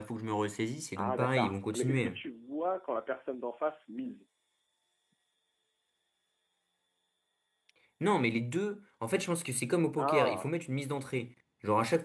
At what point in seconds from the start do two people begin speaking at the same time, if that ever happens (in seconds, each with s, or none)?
1.0 s